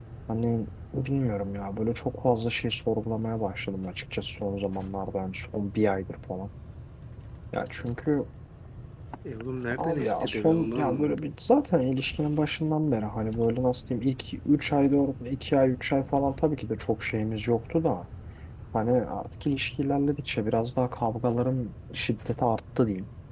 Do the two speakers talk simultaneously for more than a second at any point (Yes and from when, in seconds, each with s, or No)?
Yes, from 9.8 s